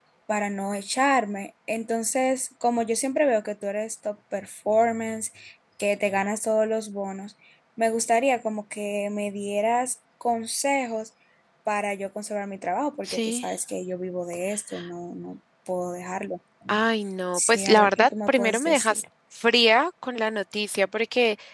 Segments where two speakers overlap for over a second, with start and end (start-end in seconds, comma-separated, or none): 17.3-19.0